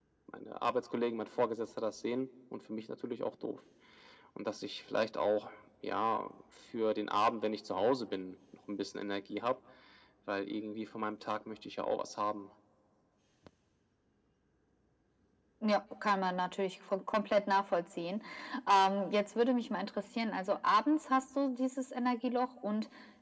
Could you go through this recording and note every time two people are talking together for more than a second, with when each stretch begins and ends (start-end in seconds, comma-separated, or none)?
none